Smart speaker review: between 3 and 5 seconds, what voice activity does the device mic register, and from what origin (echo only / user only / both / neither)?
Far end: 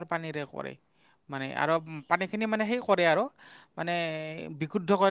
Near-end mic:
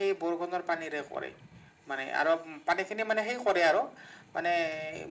echo only